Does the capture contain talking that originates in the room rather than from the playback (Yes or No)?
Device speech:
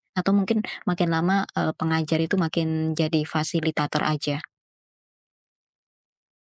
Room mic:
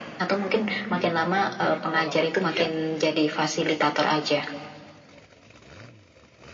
Yes